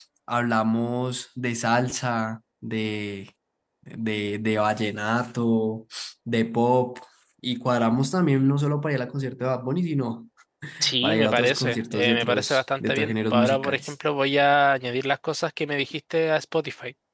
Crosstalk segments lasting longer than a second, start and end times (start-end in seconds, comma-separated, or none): 11.0-13.9